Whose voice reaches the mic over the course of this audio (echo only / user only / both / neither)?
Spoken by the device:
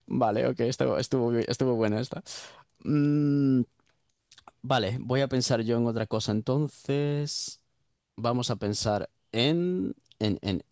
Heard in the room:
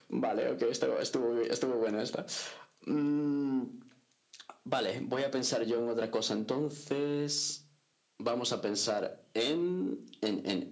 echo only